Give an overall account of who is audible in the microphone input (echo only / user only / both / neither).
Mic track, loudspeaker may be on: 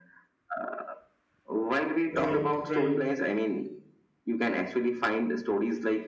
both